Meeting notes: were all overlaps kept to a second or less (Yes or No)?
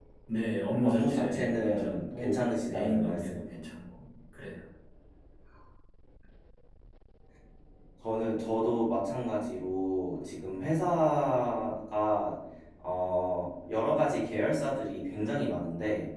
No